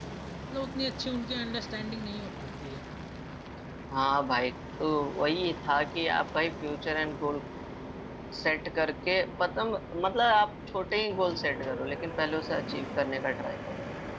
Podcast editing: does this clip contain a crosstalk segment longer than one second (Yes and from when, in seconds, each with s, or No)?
No